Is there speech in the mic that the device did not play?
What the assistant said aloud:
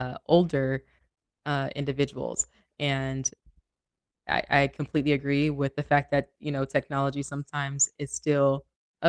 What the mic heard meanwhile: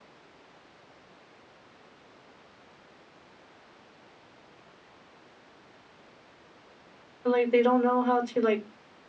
Yes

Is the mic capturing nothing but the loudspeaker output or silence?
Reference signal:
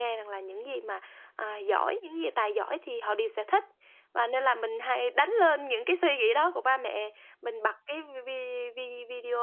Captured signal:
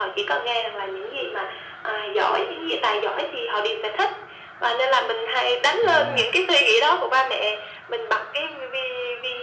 No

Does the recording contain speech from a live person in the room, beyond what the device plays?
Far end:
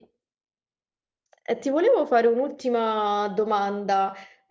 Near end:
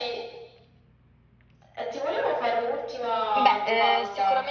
Yes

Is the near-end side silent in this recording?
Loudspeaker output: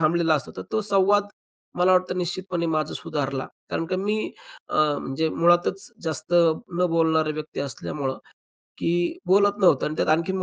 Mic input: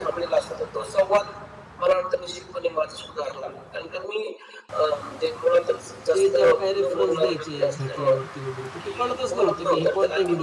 No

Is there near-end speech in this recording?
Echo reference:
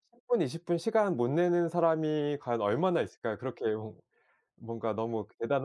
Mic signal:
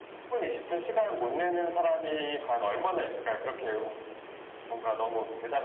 No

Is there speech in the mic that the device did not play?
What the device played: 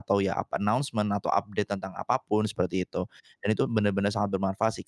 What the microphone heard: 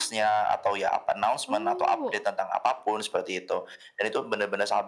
Yes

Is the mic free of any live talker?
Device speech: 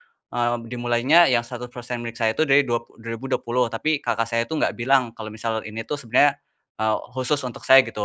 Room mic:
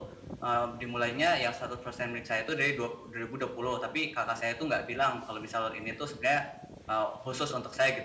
Yes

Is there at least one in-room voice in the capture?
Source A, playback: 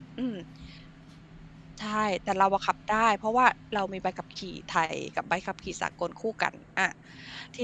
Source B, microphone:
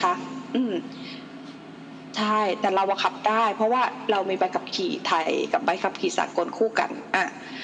No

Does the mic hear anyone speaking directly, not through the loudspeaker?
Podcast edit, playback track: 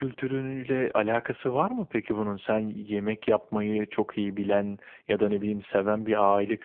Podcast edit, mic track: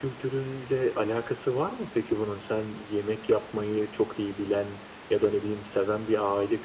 No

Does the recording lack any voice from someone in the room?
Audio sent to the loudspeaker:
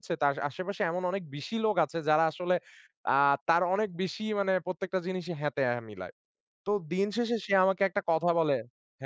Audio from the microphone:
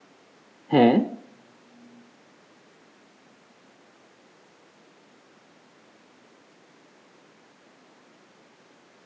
No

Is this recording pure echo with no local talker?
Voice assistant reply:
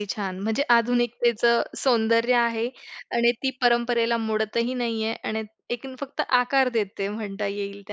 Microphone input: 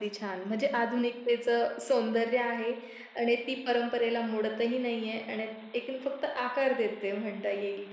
Yes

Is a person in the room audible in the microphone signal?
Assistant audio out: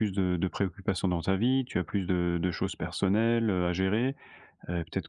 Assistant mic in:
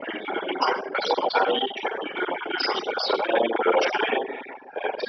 No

